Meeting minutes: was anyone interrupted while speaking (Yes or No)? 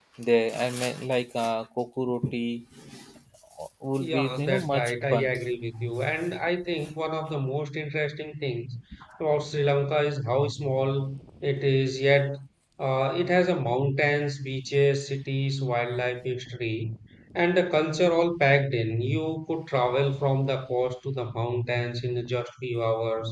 Yes